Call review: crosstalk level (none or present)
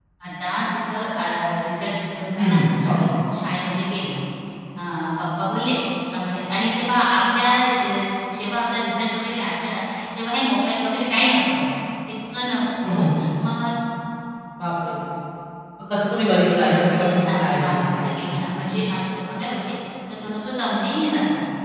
present